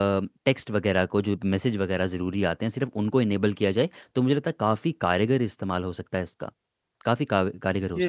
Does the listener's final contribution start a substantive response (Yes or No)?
Yes